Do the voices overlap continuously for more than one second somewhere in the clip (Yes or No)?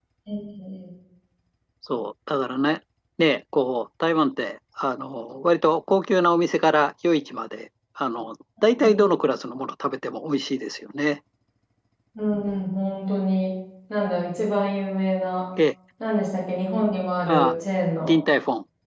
No